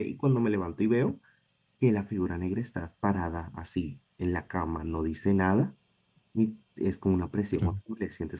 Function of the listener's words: listening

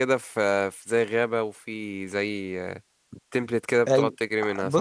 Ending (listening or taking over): taking over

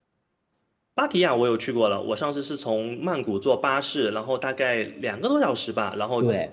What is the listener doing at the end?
taking over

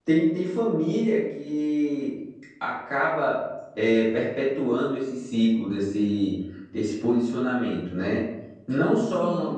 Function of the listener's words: listening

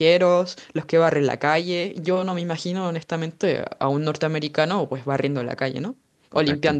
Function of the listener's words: taking over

